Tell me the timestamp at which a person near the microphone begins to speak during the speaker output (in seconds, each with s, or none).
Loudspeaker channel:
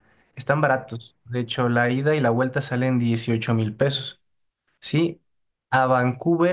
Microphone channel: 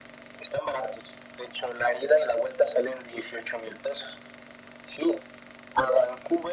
none